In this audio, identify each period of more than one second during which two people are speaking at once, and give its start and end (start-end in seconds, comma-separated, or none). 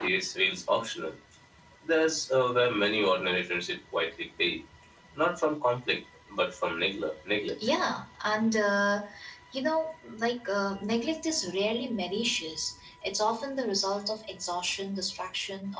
none